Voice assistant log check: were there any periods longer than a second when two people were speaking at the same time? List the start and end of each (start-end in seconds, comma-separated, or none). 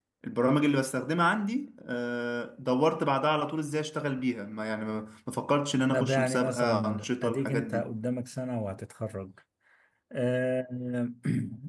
5.9-7.8